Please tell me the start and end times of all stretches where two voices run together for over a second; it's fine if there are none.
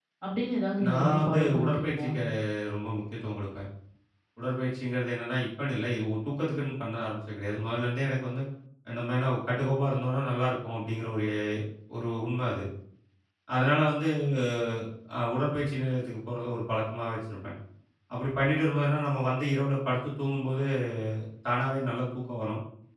0.9-2.1

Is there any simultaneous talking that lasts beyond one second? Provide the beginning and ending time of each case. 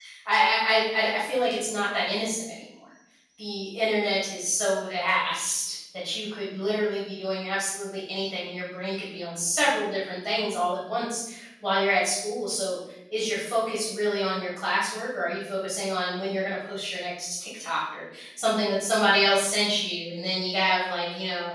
none

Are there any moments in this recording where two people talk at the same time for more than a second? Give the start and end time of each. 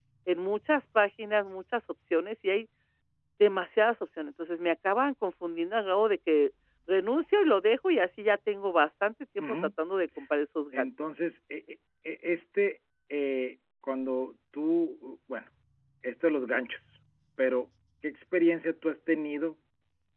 none

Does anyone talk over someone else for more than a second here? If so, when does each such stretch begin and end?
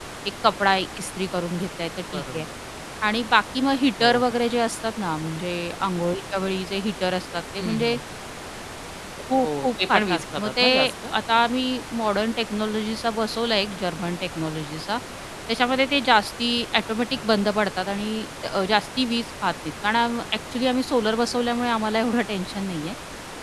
9.4-10.7

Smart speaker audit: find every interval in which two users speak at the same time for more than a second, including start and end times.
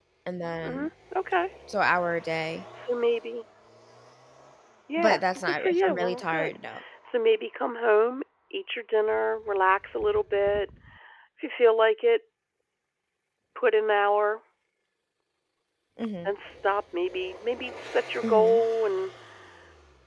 5.0-6.6

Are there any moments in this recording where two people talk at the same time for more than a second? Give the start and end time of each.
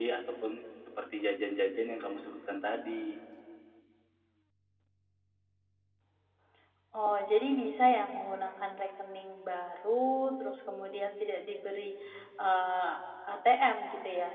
none

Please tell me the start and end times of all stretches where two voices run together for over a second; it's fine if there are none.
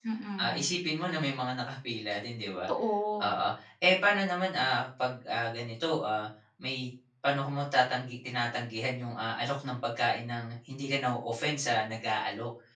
none

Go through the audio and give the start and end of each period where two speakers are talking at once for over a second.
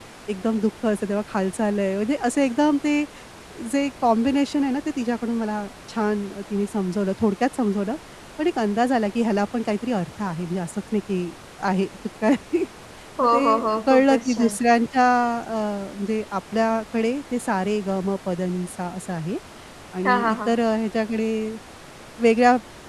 13.2-14.6

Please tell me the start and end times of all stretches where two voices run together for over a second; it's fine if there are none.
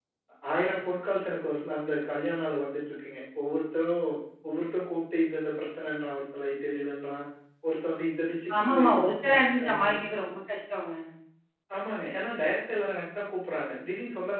8.7-10.0

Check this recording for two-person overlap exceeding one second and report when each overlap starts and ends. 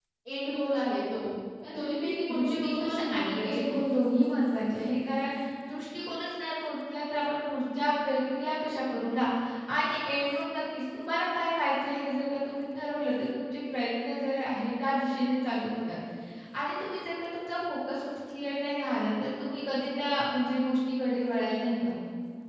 1.8-3.7

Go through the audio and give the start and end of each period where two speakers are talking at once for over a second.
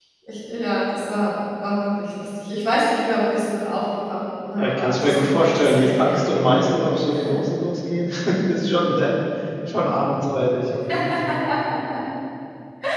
4.6-6.8

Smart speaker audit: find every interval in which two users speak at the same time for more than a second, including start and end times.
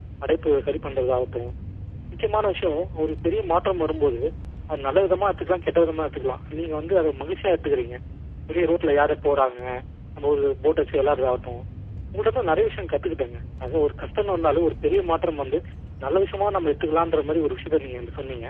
none

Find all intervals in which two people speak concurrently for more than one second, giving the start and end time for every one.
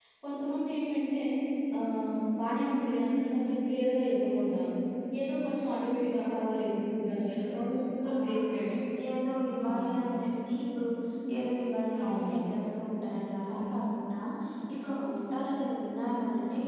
none

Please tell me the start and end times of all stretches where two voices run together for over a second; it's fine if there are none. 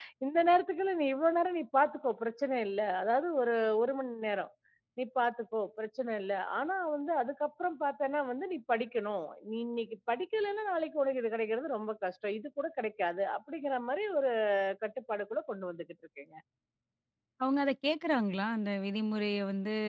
none

